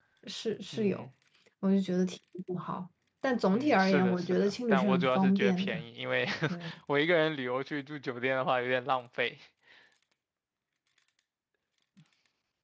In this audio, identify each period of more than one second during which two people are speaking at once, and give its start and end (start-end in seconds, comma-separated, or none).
3.5-5.8